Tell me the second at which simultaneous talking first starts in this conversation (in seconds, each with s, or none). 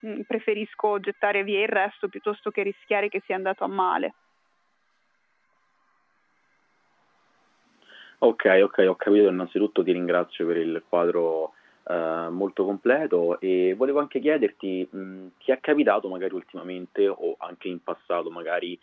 none